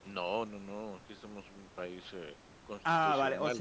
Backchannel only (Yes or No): No